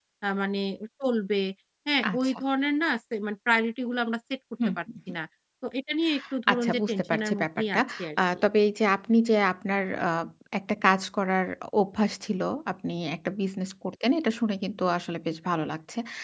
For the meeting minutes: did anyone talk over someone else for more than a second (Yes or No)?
Yes